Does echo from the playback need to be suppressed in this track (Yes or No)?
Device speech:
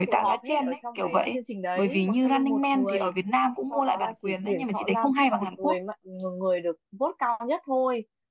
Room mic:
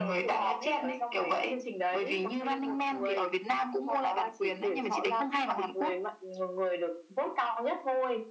Yes